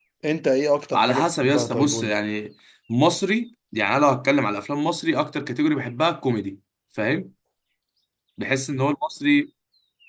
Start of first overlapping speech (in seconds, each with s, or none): 0.9 s